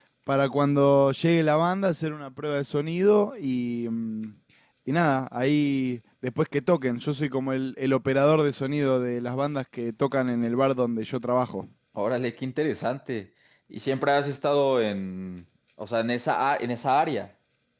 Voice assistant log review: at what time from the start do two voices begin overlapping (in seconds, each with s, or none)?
none